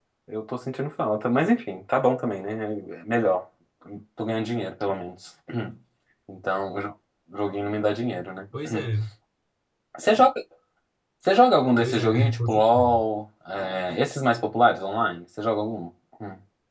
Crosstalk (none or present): present